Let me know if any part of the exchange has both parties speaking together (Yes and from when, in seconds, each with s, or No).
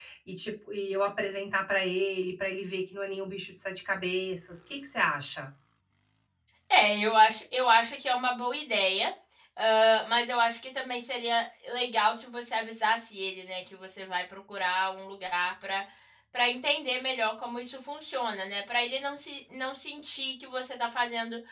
No